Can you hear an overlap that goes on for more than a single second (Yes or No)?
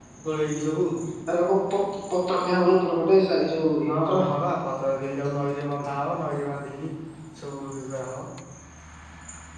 No